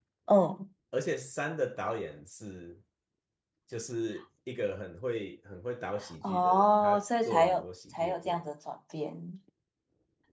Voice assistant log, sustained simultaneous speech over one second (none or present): present